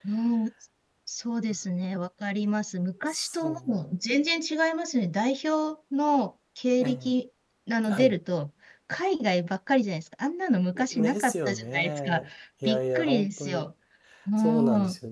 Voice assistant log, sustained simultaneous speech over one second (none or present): present